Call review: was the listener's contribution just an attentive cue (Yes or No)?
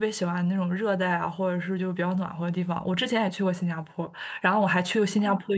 Yes